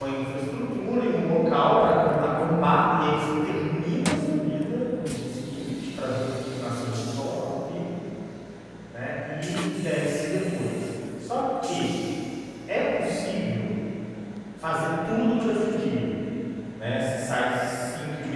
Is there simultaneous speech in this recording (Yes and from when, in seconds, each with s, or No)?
No